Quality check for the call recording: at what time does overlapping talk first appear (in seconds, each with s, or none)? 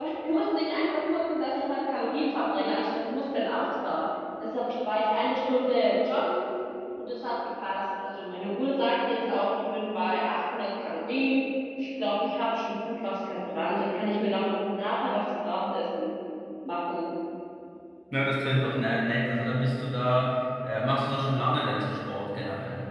none